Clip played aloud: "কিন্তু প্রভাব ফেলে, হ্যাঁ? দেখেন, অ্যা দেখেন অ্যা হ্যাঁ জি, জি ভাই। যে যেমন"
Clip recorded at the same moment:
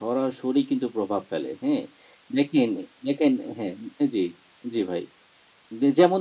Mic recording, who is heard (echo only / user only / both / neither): echo only